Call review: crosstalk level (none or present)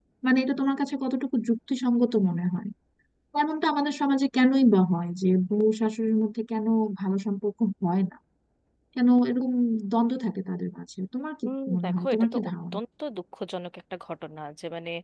present